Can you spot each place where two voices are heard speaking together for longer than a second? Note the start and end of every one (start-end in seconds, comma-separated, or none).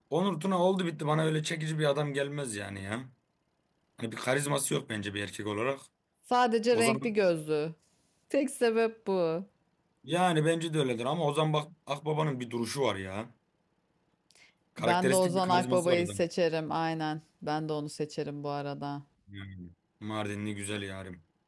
14.8-16.2